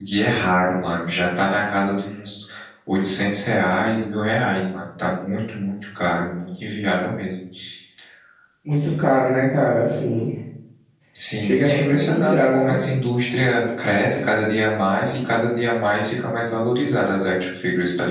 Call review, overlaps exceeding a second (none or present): present